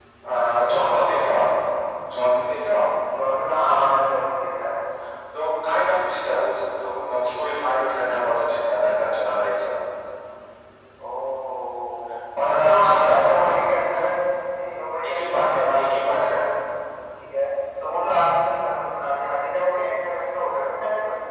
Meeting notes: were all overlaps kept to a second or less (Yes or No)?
No